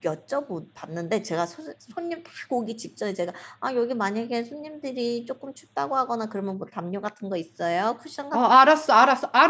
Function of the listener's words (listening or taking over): taking over